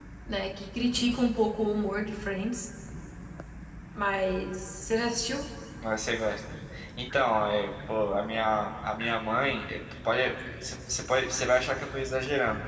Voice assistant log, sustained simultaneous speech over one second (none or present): none